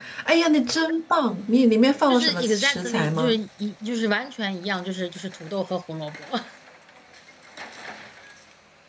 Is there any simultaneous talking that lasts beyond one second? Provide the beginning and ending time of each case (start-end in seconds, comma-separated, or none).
2.1-3.4